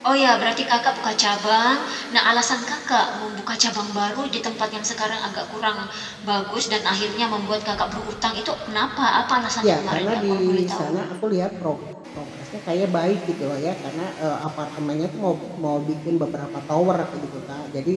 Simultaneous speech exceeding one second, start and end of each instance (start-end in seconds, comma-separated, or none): 9.6-10.9